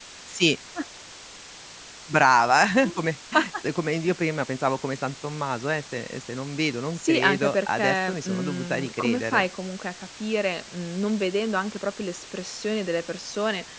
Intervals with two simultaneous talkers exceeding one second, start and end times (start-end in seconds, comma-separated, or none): 7.0-9.4